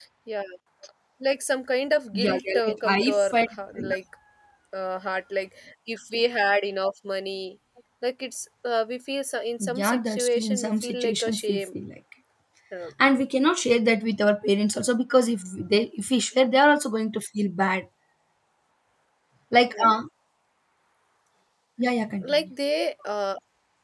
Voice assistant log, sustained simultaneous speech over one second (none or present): present